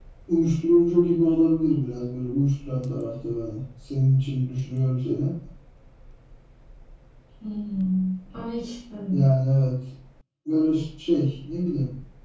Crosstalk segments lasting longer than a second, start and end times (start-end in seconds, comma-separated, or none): none